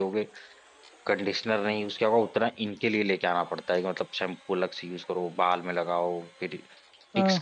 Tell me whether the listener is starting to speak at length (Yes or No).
No